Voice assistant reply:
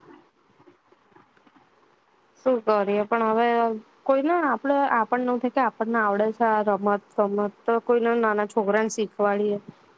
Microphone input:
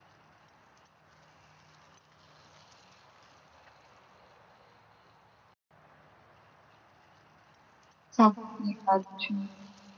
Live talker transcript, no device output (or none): સાચી વાત છે,